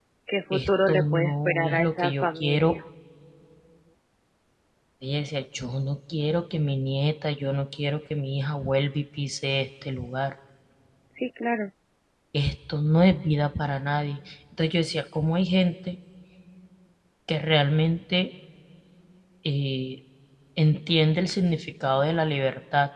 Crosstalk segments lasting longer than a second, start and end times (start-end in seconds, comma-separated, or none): 0.5-2.8